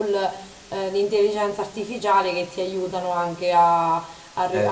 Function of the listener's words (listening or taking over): listening